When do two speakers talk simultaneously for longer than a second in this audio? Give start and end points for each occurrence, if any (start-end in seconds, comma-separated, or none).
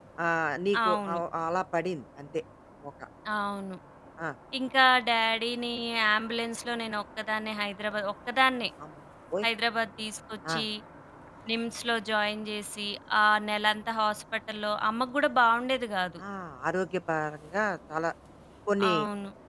none